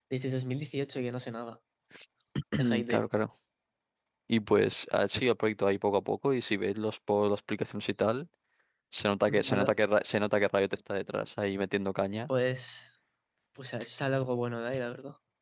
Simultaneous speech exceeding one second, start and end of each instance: none

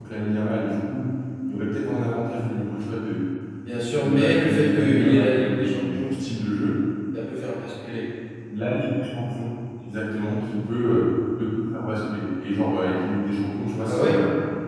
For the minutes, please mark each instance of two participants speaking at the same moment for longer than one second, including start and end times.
3.9-6.1

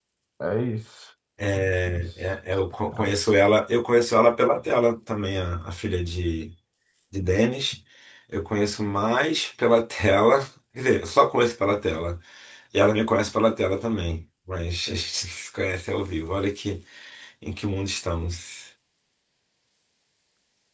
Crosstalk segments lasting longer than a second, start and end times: none

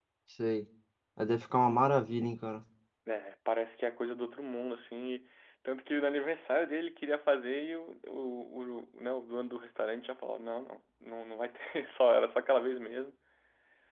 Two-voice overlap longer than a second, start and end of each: none

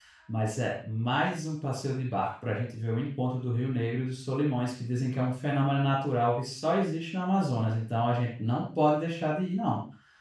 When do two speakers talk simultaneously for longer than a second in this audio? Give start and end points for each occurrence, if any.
none

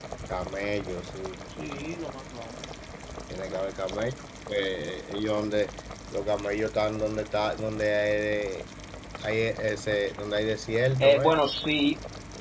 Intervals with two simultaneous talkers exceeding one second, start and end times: none

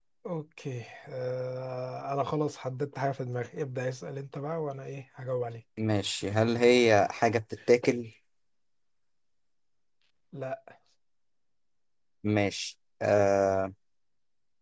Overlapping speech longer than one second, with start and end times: none

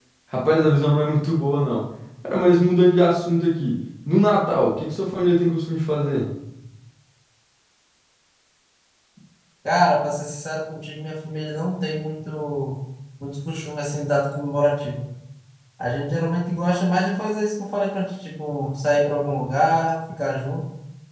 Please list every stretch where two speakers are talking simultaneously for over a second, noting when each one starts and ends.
none

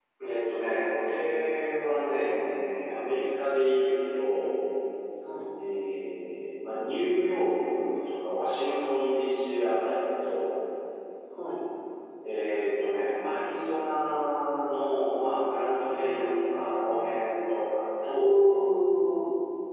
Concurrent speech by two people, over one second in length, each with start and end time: 15.8-17.6

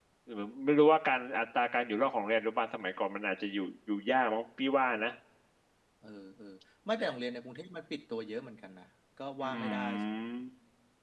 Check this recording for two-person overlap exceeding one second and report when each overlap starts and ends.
none

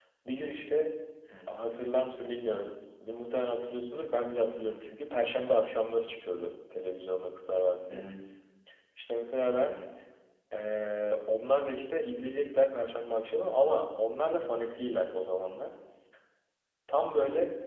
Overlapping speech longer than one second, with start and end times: none

